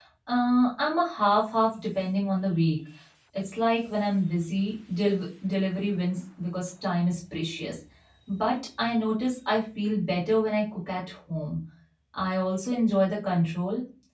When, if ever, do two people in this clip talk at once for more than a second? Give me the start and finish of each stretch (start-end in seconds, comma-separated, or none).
none